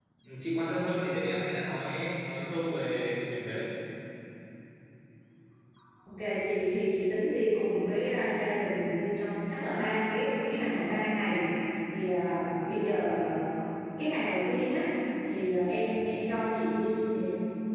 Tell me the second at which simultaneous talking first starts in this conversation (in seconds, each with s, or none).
none